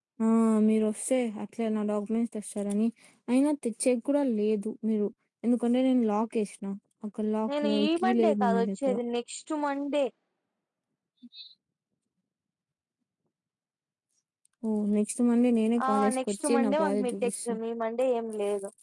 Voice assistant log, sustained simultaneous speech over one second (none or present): present